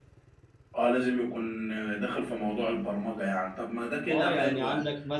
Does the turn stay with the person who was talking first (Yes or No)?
No